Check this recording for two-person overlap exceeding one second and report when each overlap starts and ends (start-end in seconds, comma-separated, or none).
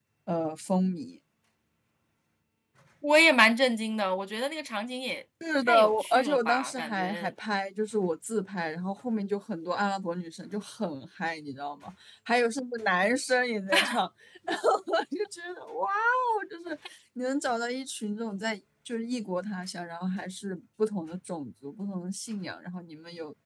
5.7-7.3